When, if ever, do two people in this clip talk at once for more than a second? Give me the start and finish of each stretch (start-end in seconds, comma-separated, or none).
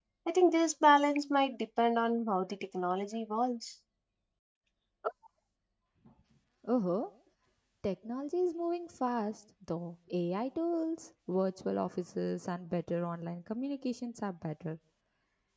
none